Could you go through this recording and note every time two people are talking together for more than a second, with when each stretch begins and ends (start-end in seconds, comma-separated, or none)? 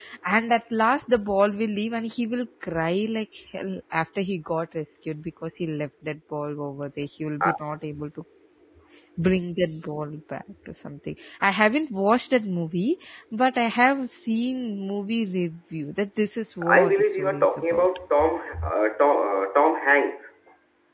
16.7-17.9